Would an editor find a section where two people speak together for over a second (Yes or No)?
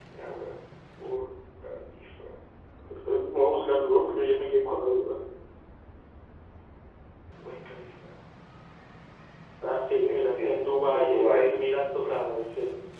Yes